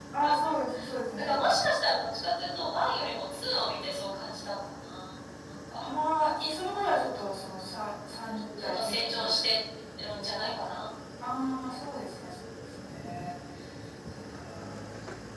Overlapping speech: Yes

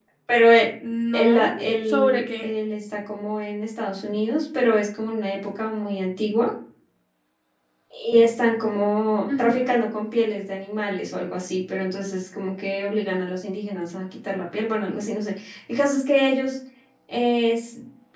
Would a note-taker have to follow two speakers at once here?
Yes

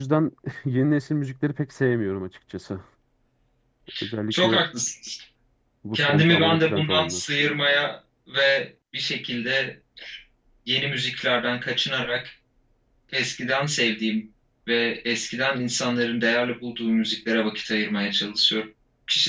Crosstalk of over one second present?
Yes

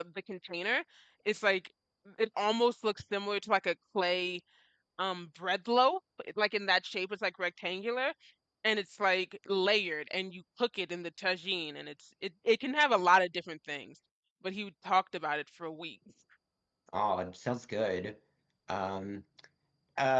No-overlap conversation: Yes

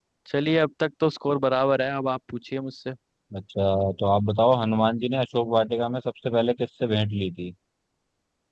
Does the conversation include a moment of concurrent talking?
No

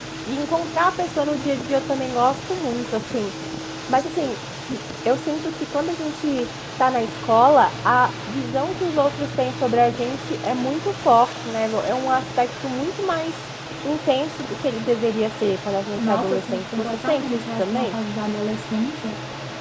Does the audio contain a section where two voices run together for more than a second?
Yes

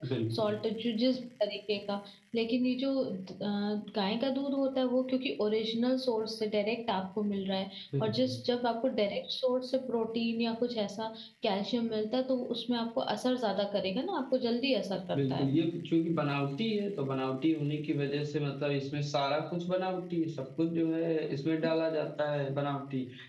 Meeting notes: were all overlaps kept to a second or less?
Yes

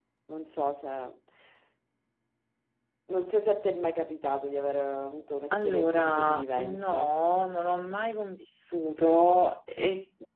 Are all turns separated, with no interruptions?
No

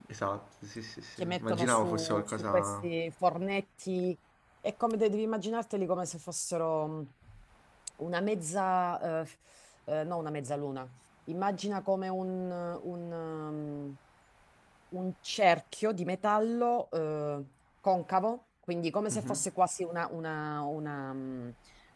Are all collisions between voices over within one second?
No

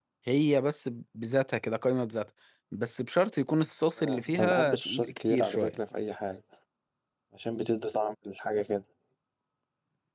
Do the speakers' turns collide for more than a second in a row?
Yes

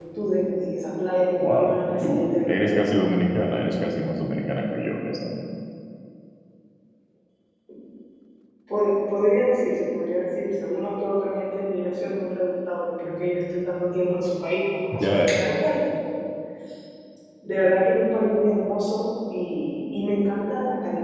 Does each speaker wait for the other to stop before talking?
No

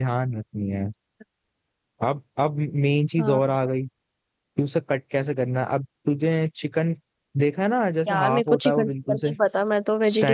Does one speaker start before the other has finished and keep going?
Yes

